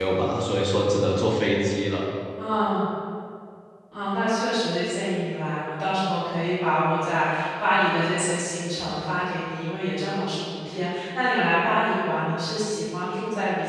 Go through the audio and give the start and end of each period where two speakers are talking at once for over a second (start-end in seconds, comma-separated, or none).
none